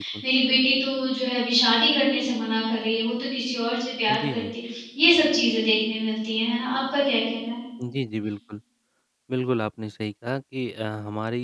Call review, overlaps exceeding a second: none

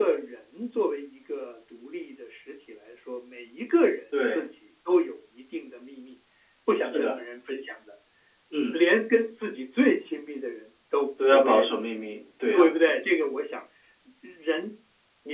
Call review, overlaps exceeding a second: none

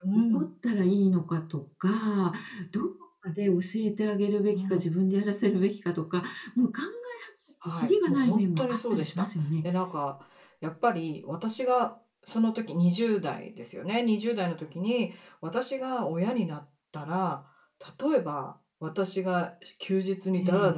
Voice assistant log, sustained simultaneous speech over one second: present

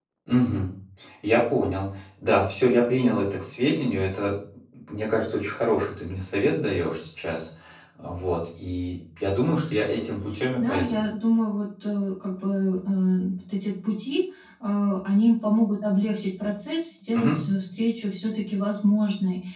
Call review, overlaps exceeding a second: none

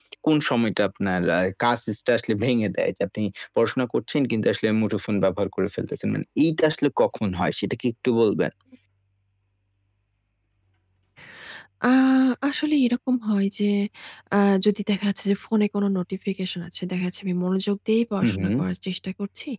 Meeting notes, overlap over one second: none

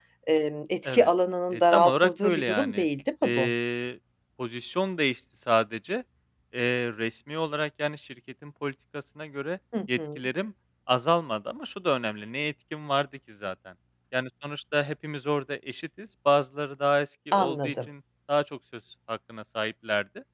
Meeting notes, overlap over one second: present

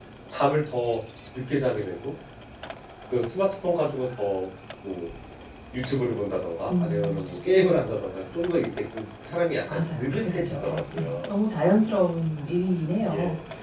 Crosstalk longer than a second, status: present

